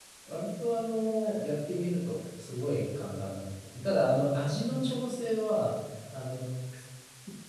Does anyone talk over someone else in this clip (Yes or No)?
No